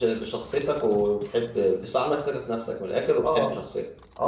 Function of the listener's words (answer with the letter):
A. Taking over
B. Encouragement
A